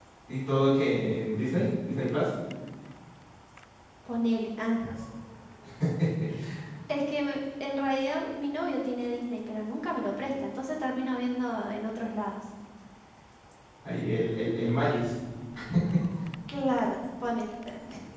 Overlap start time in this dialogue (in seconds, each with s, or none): none